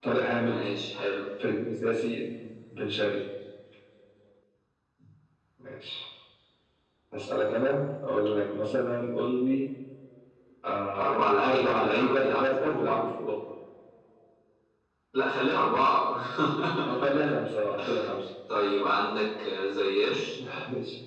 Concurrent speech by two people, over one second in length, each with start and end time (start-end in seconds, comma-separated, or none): 11.0-13.0